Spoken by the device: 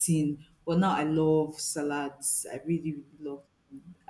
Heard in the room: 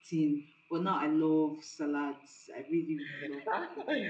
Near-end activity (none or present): present